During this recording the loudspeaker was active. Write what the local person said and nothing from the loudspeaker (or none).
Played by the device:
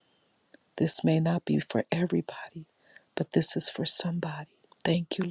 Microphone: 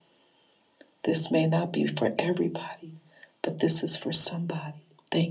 none